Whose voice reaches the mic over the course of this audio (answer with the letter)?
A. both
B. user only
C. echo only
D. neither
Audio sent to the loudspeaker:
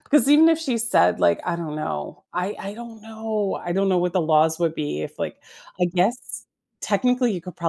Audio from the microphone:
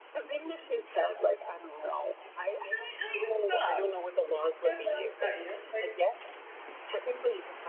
A